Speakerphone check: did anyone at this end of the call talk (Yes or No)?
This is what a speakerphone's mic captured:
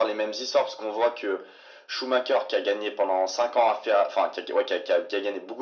No